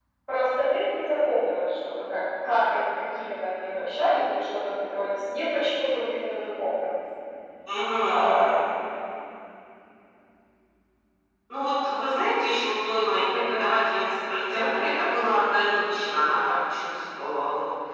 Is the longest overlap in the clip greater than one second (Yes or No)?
No